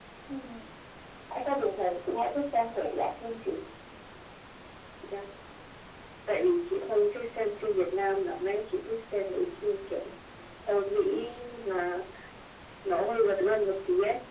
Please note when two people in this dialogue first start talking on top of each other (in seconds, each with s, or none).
none